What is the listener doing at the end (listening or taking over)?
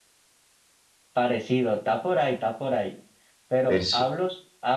listening